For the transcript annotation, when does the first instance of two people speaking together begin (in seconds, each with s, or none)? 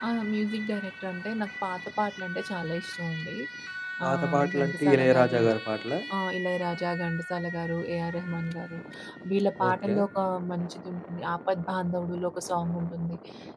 4.0 s